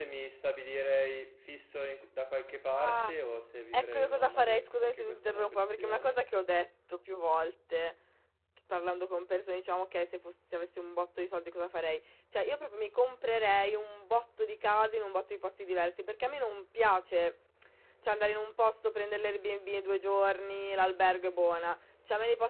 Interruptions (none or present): present